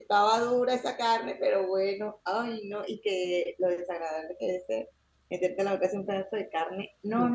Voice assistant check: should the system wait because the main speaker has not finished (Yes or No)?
Yes